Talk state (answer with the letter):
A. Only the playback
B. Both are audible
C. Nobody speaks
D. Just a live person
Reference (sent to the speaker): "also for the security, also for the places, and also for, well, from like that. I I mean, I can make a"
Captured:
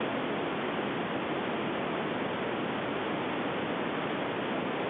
C